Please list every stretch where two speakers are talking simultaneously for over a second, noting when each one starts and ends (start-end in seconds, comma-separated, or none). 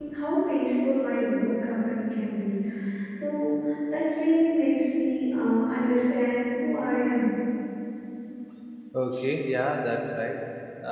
none